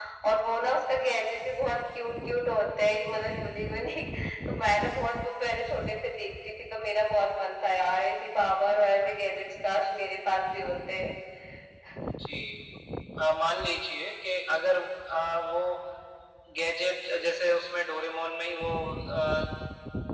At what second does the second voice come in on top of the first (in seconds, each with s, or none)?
none